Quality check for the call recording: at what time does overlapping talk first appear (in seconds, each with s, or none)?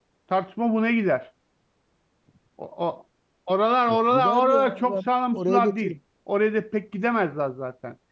3.9 s